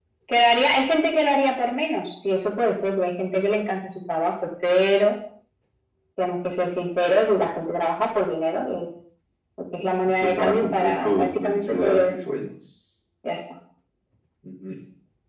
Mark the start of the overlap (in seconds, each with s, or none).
10.2 s